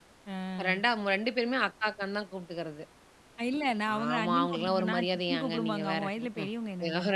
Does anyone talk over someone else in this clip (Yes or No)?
Yes